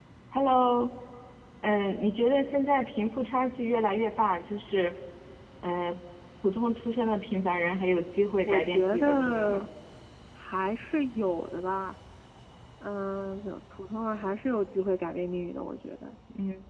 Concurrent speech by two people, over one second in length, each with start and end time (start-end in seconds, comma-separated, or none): 8.4-9.6